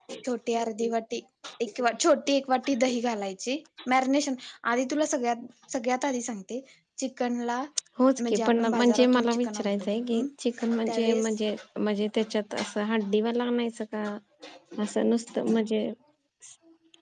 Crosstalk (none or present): present